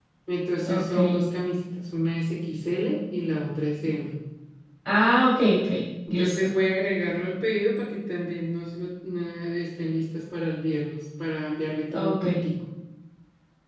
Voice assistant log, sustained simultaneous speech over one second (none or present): none